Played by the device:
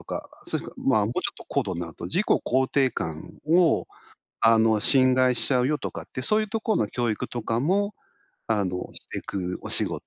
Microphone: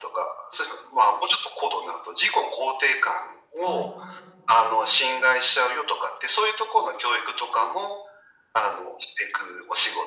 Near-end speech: present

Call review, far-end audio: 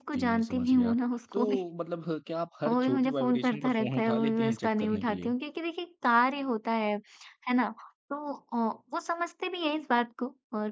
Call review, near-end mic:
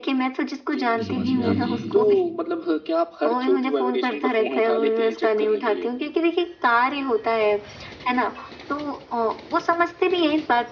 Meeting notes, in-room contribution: present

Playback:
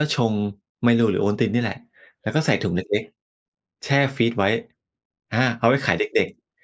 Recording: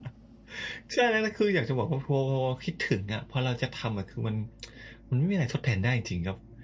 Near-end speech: present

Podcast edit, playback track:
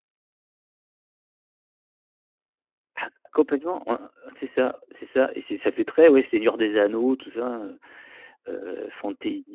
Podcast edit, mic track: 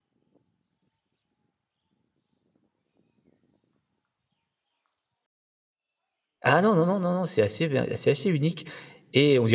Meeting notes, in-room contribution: present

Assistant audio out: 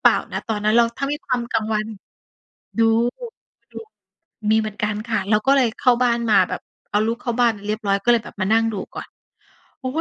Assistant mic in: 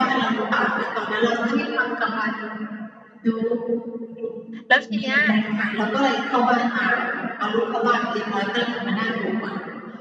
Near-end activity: present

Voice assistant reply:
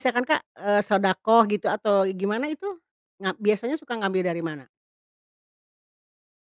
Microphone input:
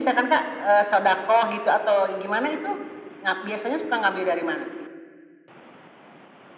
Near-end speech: none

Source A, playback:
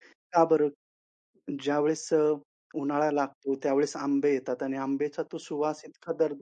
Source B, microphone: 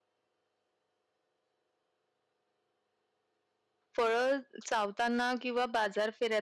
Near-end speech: present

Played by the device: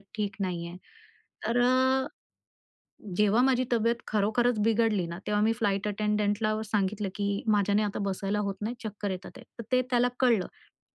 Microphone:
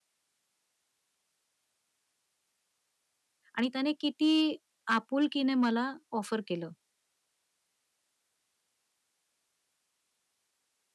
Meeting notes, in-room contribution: present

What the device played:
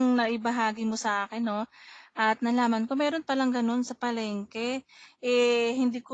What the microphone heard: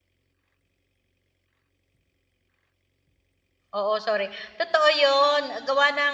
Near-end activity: present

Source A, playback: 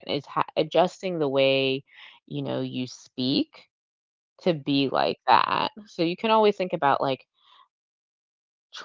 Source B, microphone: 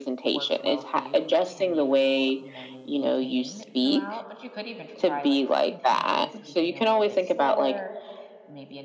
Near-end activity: present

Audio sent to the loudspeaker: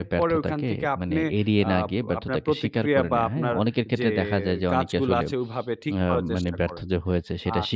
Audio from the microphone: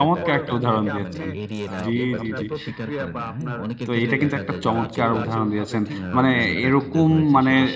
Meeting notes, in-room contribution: present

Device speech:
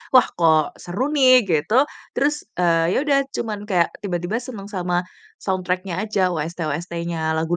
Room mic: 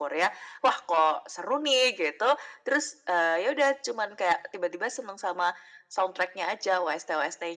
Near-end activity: none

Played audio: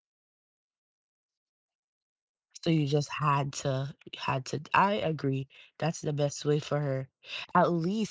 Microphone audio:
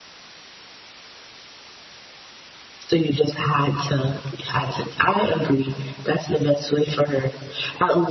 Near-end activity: none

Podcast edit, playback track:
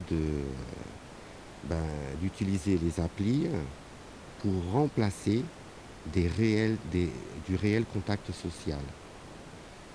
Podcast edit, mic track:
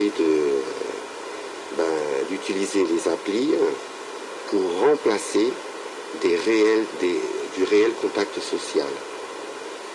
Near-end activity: none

